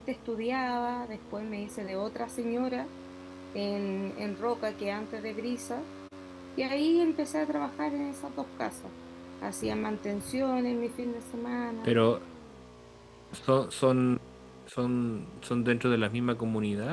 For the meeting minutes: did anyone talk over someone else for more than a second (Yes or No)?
No